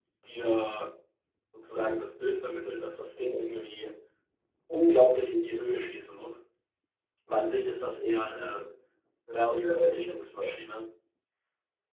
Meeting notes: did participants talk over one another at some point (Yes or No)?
Yes